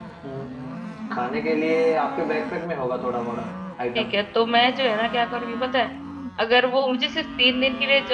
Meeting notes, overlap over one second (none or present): none